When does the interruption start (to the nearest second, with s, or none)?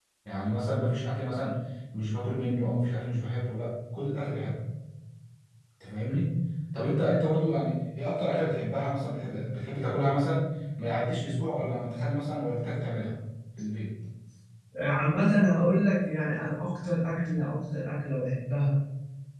none